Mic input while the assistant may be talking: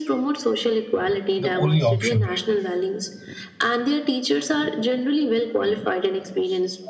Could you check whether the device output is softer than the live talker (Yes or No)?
Yes